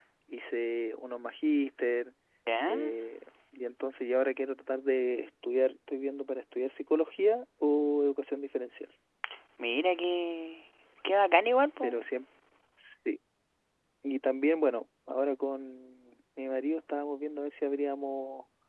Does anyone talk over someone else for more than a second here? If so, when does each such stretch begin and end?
none

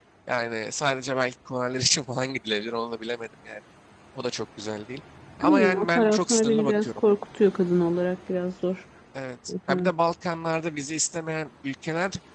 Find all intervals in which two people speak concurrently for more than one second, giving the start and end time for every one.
5.4-7.0

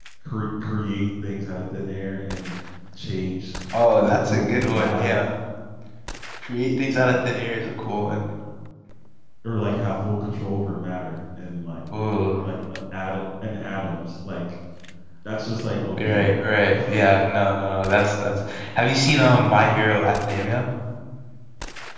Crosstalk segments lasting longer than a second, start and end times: 4.0-5.3

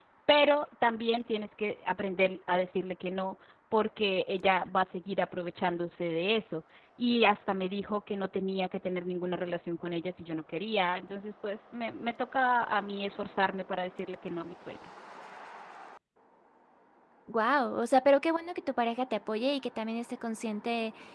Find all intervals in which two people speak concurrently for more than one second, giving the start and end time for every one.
none

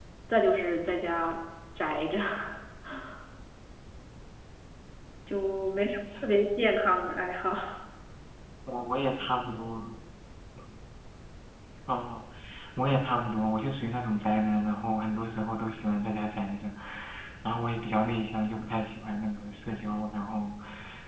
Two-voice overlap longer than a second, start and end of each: none

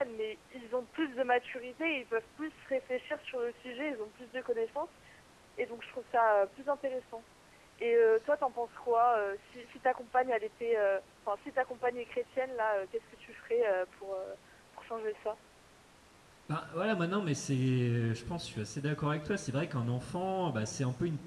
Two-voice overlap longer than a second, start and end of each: none

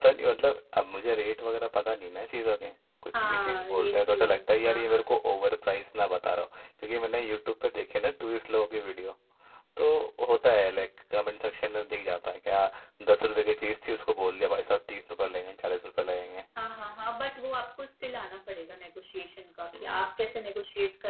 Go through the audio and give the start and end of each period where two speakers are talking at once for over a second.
3.2-5.1

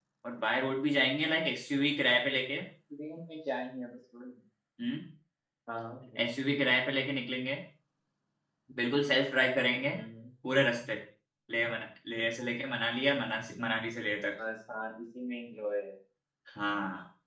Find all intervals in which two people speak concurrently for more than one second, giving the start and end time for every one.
none

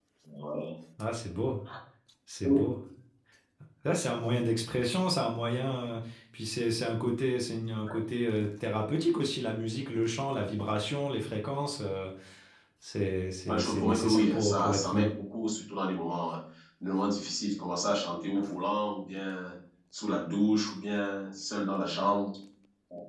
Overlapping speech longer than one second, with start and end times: 13.5-15.1

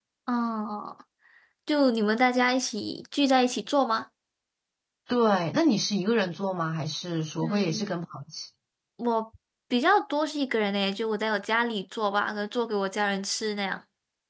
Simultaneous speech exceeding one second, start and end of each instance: none

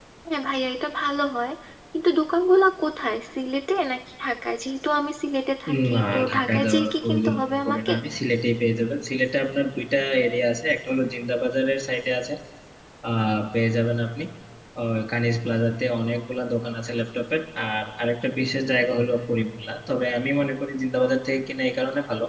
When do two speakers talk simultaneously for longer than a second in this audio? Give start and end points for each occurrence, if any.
5.9-7.9

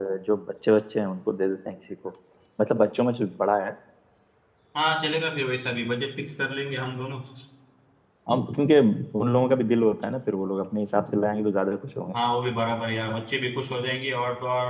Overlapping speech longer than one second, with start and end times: none

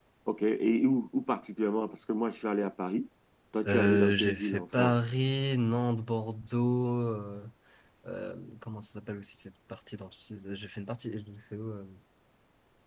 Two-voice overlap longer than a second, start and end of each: 3.7-5.0

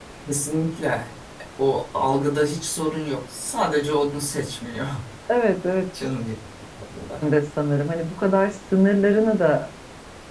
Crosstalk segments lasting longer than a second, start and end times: none

